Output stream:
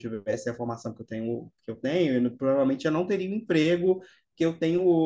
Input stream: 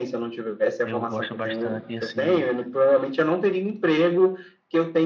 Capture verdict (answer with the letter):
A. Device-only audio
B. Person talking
B